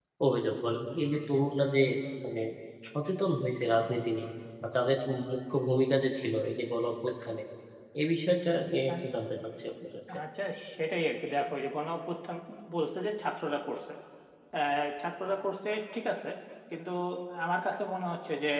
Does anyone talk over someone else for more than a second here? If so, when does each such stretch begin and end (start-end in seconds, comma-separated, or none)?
none